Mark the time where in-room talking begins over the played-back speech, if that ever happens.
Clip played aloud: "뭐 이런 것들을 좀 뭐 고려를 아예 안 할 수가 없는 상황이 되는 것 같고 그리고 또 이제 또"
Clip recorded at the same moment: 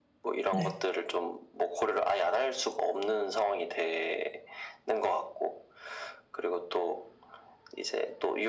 1 s

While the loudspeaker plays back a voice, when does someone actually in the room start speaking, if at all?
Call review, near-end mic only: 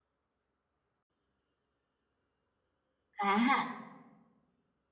3 s

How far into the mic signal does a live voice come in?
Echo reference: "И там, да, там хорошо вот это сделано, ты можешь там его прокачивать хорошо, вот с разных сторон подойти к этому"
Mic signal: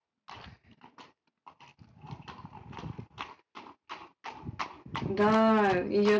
5 s

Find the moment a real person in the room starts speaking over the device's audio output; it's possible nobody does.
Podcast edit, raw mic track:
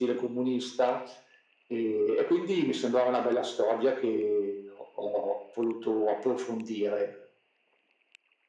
none

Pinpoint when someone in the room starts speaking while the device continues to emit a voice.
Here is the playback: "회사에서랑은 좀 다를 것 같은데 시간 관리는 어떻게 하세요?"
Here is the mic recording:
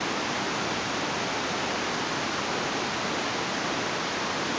none

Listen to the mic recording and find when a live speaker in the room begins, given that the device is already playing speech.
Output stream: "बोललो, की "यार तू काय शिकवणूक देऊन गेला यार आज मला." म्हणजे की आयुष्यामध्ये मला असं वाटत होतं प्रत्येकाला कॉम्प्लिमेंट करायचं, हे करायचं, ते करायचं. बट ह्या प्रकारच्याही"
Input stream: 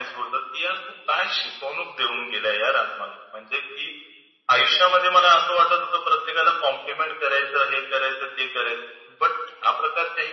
none

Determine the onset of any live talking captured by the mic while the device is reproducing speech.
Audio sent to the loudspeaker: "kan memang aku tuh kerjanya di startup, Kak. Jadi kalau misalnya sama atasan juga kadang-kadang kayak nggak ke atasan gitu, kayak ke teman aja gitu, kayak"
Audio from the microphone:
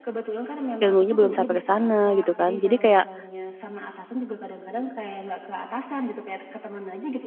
1 s

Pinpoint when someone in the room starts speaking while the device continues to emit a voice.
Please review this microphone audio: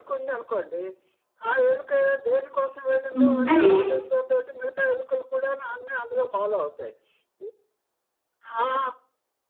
3 s

